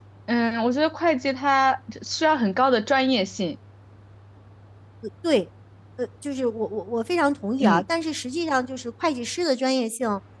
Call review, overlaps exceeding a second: none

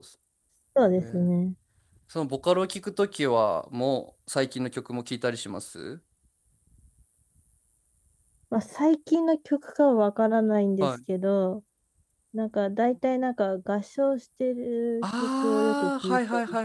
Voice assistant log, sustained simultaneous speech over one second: present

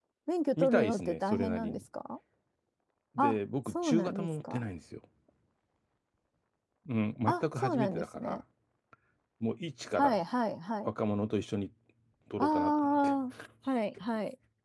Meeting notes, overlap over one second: present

